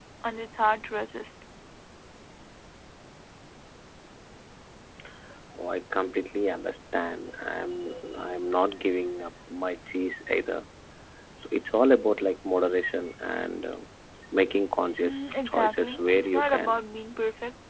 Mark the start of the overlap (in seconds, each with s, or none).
15.0 s